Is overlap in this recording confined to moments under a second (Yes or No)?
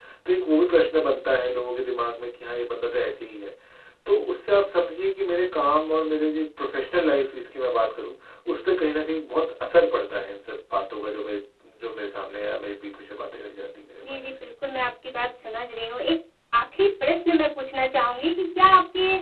Yes